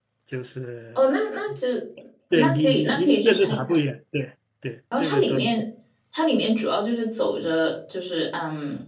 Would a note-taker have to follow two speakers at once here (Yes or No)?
Yes